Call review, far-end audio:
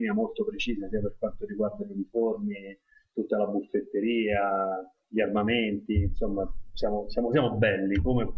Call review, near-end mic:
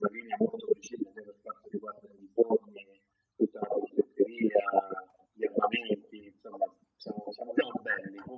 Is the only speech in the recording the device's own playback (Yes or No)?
Yes